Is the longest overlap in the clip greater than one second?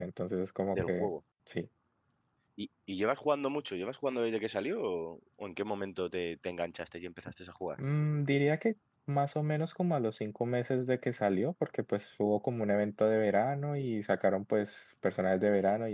No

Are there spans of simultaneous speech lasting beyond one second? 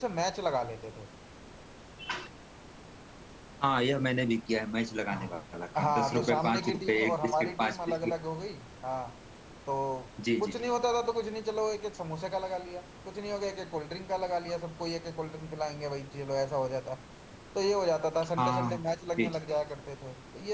Yes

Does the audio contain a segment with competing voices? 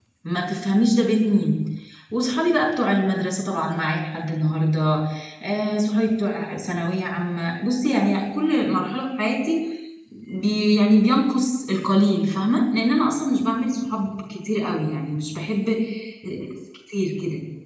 No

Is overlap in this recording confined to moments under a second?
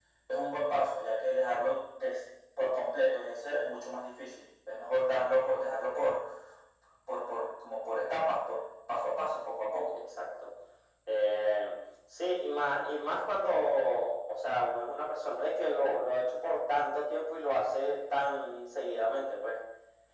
Yes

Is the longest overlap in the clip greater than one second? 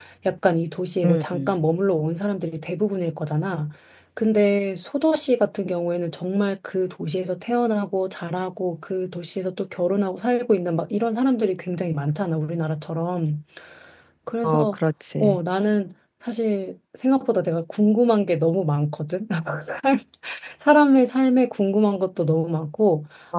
No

